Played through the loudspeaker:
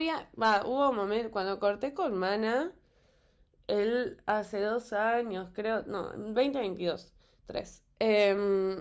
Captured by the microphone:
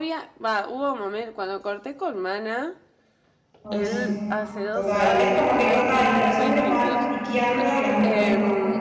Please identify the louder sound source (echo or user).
user